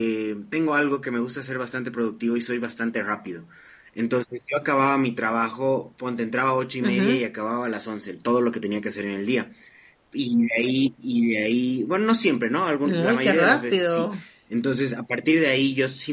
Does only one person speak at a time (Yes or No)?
No